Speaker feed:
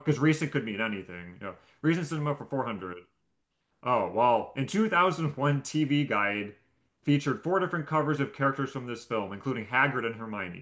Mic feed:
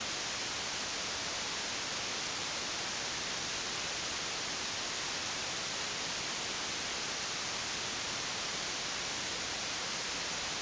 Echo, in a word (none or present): none